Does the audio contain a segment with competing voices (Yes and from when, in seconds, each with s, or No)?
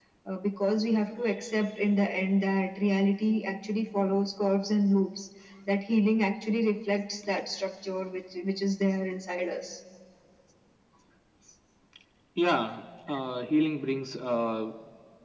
No